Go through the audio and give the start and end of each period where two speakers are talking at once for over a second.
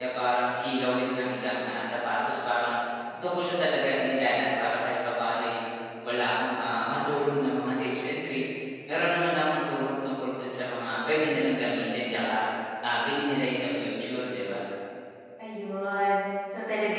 none

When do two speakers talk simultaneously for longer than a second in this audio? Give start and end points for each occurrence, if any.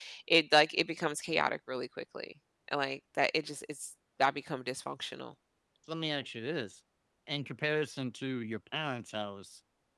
none

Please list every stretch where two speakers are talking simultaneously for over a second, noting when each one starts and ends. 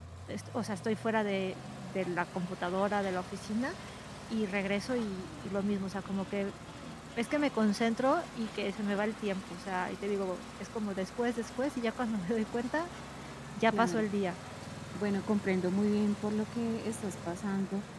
none

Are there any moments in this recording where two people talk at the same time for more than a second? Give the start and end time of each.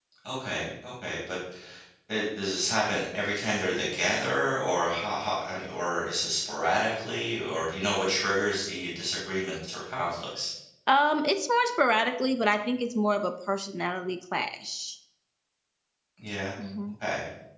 none

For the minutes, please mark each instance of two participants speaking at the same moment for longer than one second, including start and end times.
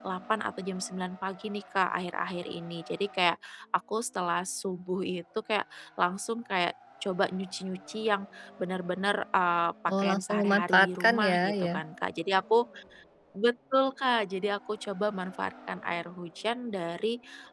10.0-11.7

